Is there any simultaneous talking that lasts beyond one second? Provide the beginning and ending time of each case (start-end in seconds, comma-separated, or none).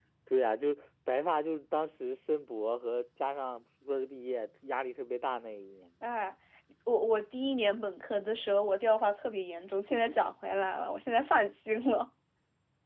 none